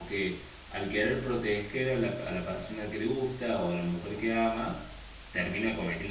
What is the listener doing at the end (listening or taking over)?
listening